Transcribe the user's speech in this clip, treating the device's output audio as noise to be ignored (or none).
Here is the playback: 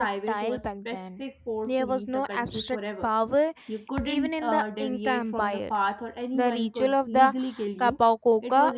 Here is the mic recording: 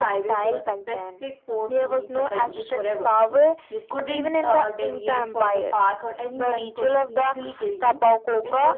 none